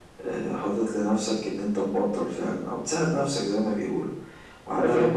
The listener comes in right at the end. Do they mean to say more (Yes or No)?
No